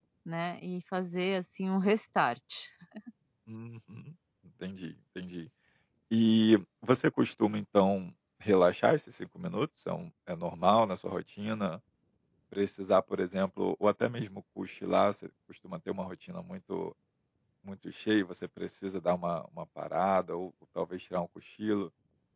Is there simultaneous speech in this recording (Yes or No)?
No